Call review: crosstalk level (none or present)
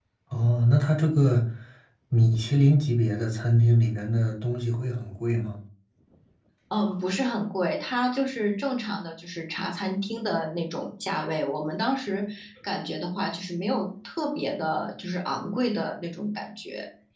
none